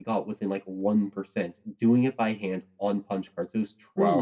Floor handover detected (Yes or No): No